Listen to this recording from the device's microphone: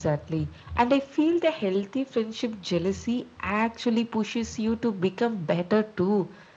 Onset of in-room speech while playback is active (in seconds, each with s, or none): none